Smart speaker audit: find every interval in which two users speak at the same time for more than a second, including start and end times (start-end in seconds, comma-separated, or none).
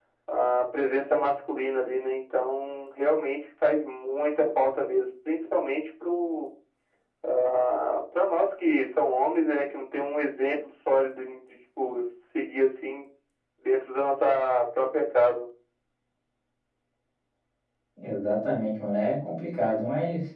none